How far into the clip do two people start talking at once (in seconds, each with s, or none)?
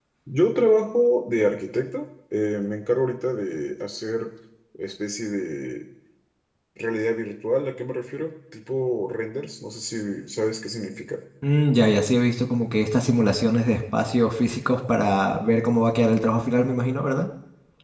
none